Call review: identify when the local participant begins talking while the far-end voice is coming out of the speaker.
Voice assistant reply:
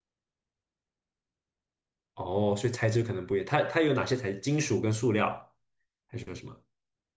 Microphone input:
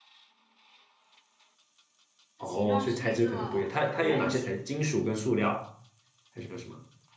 2.4 s

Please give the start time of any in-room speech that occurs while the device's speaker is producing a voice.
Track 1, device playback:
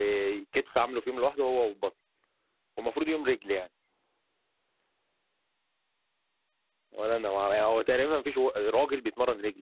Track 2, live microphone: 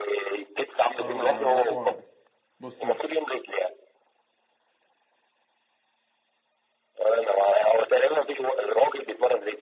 1.0 s

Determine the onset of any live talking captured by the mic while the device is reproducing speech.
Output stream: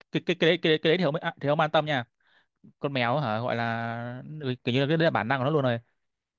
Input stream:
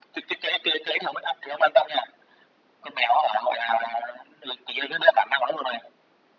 none

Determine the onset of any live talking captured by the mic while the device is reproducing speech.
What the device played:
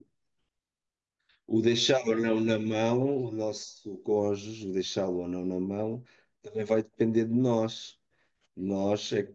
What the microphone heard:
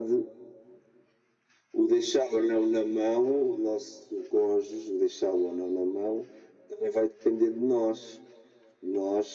none

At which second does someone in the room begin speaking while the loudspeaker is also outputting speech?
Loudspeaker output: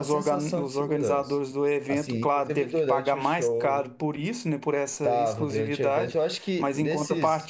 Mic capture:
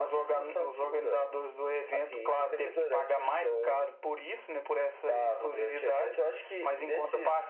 none

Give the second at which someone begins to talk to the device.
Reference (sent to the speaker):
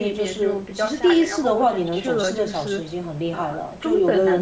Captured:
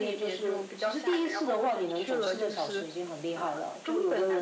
none

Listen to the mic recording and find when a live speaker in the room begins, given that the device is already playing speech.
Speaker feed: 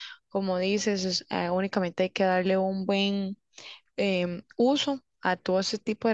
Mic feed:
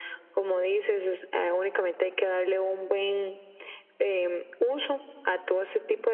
none

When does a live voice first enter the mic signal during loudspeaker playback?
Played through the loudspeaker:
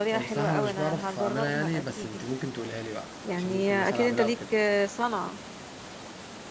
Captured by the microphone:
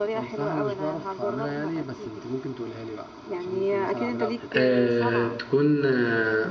4.5 s

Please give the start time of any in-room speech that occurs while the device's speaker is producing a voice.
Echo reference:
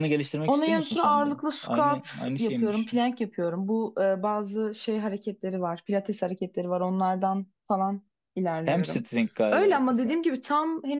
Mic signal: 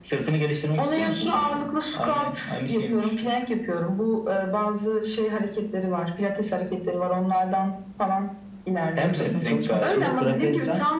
8.9 s

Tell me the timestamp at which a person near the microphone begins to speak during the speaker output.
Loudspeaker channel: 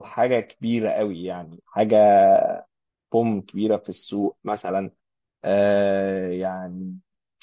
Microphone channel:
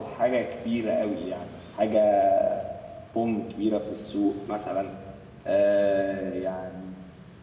none

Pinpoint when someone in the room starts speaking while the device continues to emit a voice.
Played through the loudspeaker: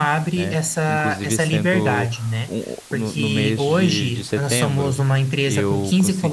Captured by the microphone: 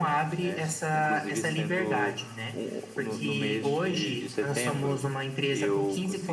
none

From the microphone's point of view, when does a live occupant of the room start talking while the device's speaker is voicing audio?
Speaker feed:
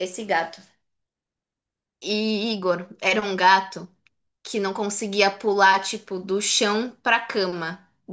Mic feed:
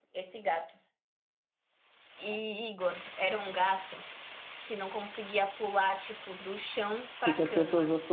7.2 s

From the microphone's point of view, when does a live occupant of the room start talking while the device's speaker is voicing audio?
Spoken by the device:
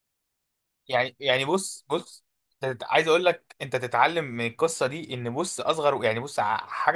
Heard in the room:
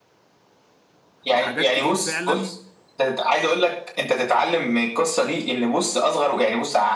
1.3 s

